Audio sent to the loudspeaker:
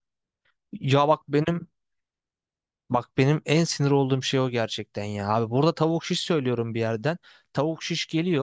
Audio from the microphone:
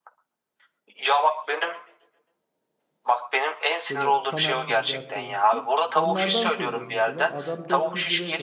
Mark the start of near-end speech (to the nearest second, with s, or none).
4 s